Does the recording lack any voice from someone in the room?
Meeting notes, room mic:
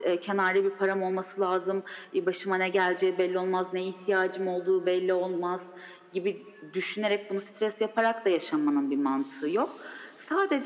Yes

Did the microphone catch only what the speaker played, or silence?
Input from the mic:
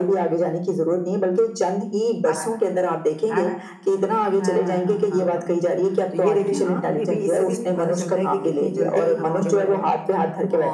No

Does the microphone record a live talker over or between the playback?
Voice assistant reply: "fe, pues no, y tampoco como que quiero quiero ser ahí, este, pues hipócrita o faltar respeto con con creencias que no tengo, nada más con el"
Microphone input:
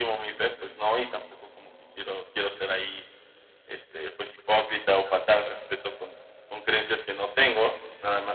No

